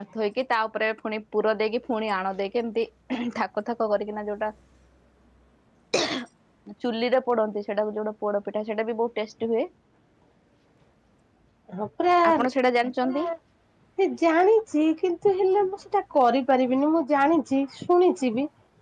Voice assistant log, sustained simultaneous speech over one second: none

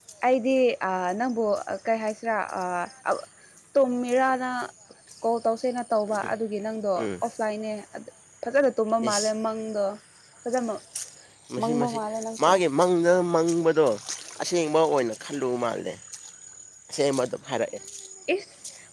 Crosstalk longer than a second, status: none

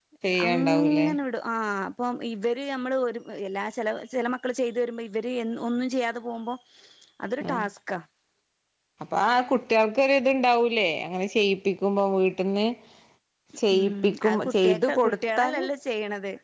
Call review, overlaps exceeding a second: present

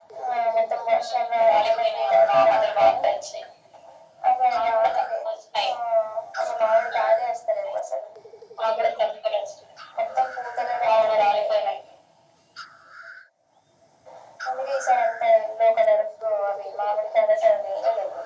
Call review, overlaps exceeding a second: present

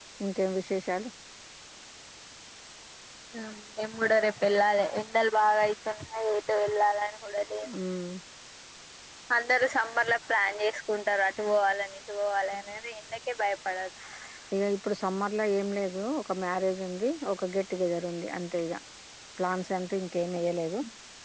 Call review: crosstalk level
none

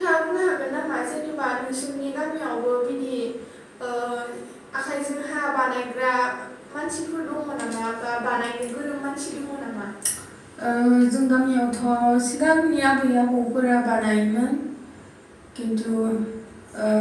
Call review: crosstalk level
none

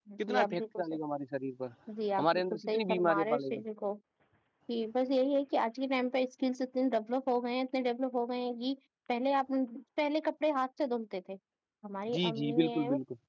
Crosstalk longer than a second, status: present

